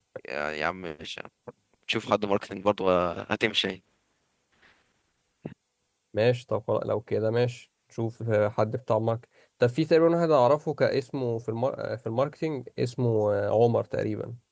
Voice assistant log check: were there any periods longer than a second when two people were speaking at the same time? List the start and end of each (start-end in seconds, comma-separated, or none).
none